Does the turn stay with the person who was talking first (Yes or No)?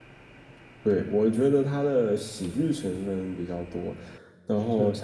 Yes